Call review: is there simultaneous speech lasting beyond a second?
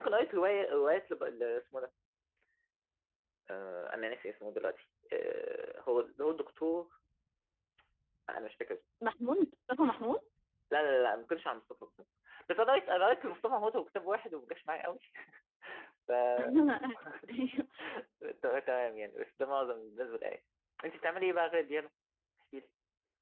No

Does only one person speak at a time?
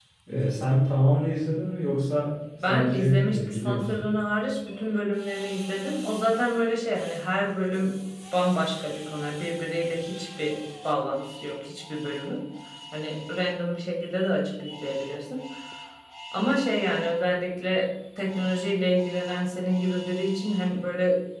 No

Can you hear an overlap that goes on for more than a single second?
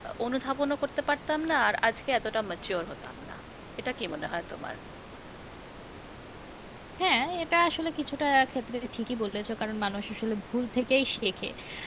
No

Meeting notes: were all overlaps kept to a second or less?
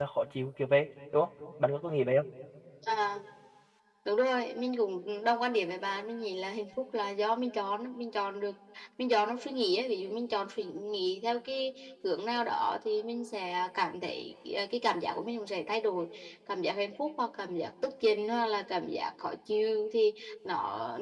Yes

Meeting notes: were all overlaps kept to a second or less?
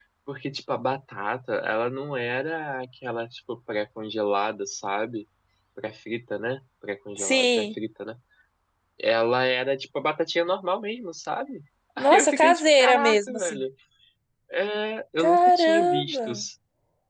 No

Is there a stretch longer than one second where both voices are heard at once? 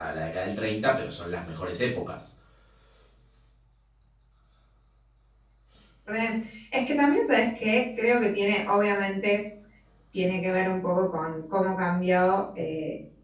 No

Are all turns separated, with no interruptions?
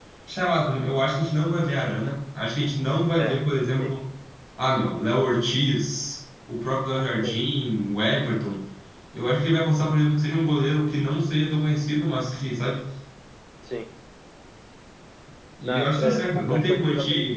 No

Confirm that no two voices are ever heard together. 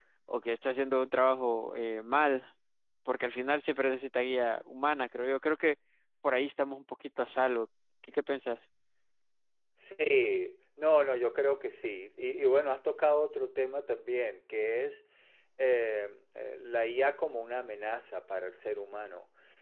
Yes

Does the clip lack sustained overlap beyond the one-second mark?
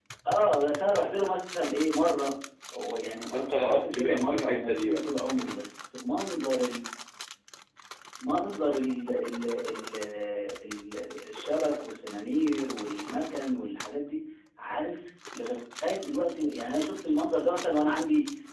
No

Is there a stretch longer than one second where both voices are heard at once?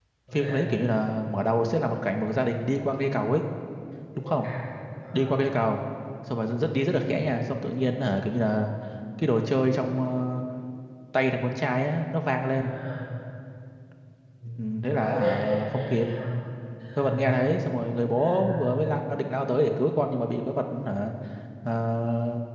Yes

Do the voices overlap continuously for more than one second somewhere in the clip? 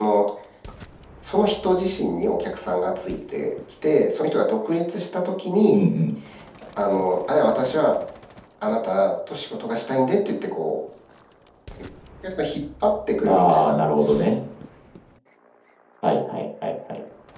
No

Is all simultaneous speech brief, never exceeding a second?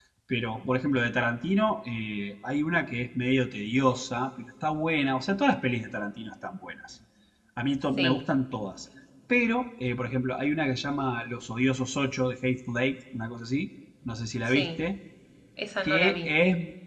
Yes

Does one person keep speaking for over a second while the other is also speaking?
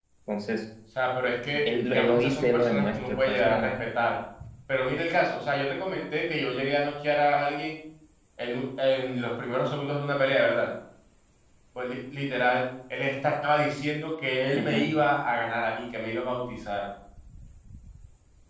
Yes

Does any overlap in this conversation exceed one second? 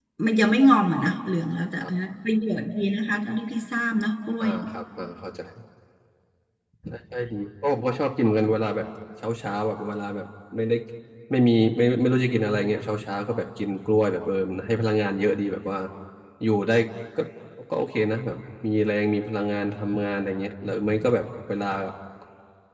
No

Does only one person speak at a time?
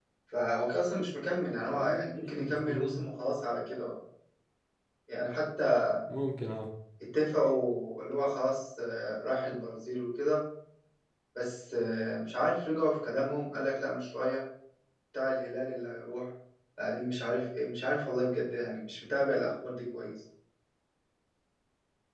No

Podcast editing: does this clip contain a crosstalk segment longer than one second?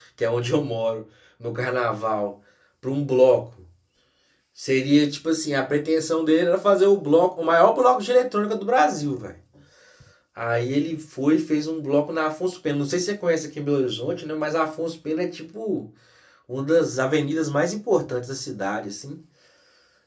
No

